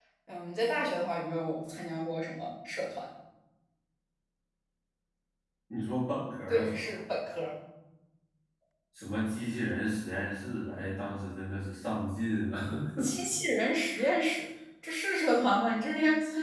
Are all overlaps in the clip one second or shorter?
Yes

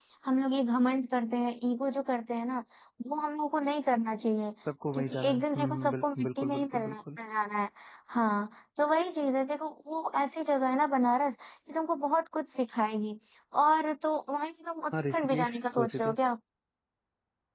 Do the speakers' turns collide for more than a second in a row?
Yes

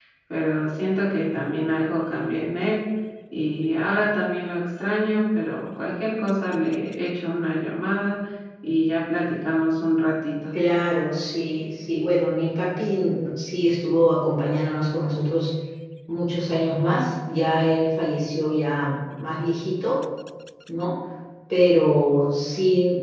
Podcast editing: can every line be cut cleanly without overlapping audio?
Yes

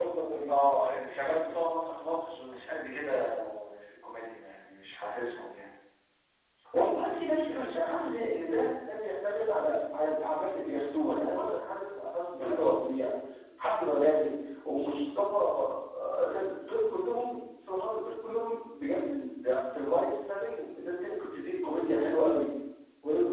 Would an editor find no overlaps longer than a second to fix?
Yes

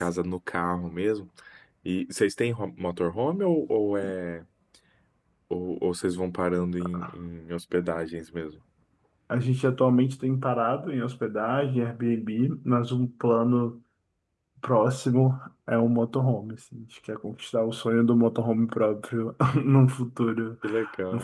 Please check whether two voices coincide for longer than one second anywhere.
No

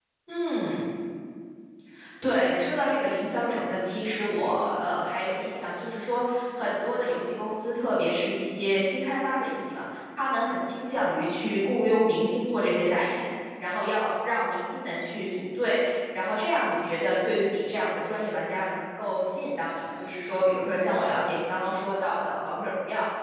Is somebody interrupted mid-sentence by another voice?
No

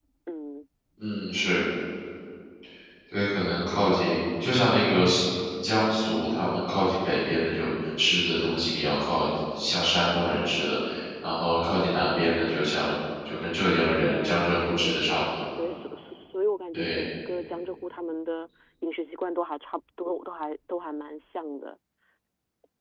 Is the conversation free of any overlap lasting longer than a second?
No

